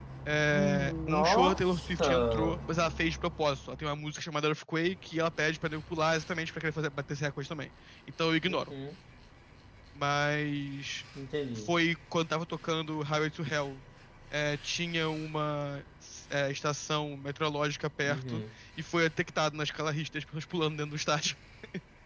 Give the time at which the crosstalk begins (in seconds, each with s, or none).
0.5 s